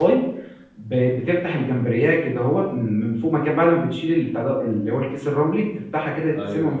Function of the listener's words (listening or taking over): listening